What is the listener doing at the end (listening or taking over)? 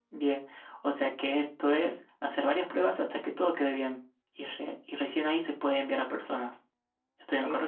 taking over